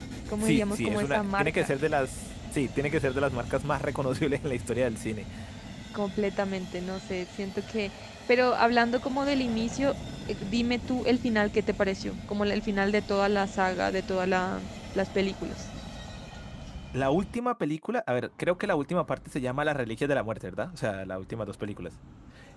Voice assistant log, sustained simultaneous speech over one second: present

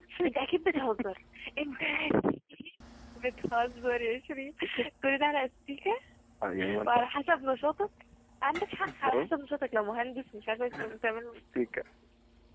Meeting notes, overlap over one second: none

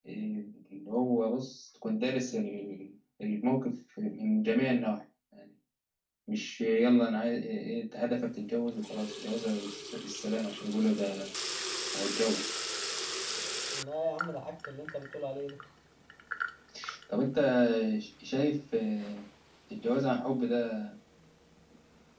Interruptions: none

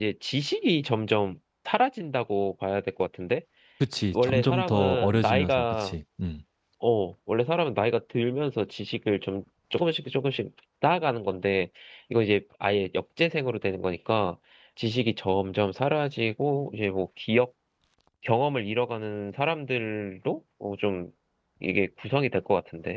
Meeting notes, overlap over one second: present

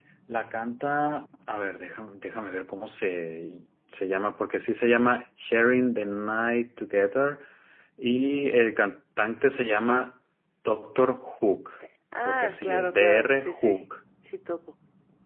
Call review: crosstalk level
present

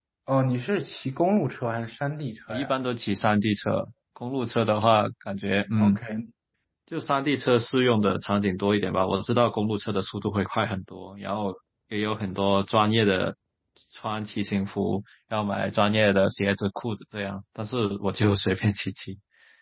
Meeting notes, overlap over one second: none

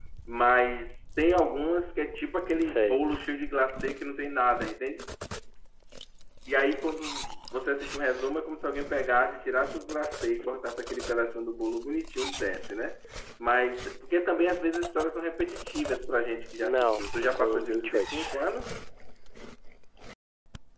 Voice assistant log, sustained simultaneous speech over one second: present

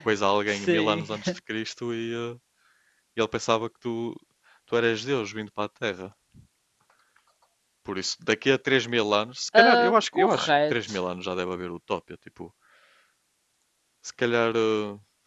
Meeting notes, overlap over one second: present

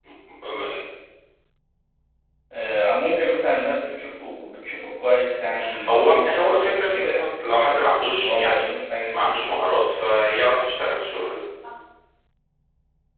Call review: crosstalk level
present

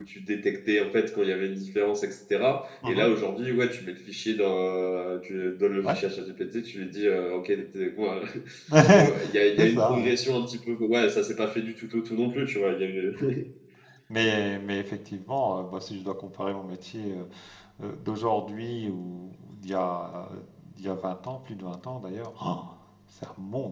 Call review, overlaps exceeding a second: none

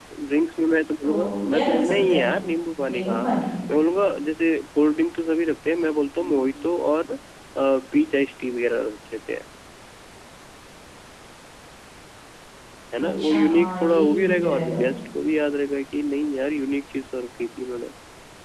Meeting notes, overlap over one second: present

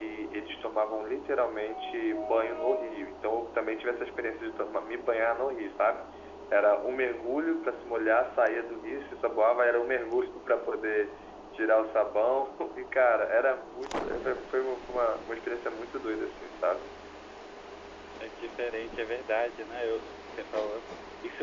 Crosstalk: none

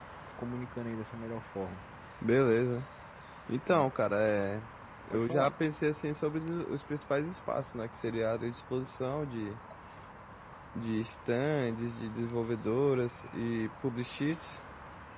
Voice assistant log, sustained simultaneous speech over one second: none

